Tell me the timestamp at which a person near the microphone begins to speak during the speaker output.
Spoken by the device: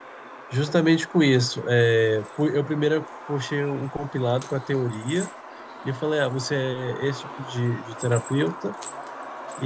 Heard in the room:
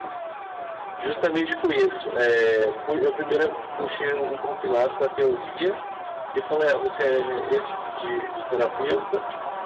none

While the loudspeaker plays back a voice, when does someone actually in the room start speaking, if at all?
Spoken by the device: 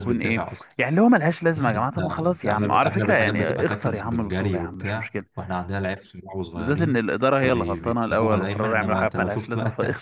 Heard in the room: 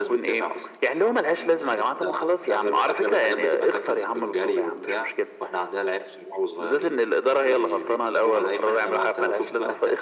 none

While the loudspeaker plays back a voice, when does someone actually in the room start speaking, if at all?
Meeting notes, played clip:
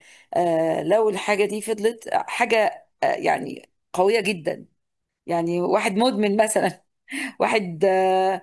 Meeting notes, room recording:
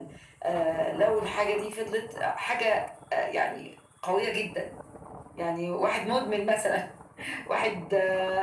none

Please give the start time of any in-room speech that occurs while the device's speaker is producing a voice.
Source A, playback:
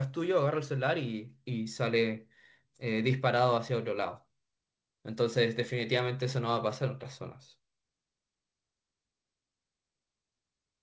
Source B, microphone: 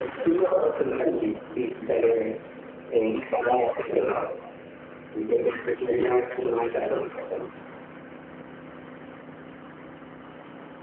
none

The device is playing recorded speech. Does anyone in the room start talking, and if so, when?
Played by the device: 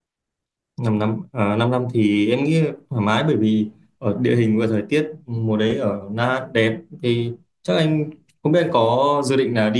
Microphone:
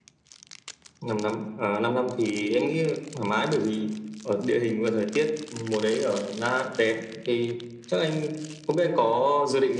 none

